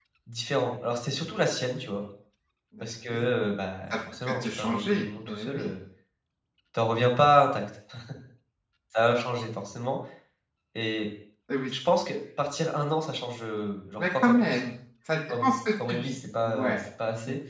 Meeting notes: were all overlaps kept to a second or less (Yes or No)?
No